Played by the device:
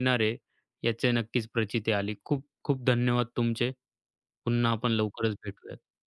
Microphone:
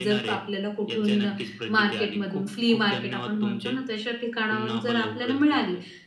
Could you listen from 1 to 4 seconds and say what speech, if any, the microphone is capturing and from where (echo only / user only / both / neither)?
both